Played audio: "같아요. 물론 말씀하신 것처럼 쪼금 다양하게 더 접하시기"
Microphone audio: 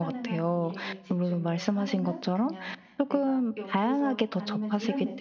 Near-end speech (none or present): present